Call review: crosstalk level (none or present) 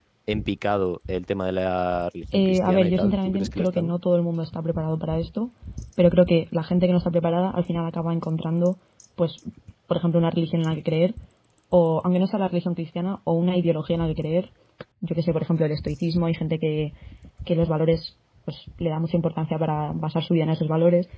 present